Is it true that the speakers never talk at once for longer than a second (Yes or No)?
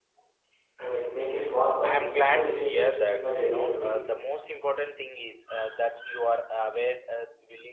No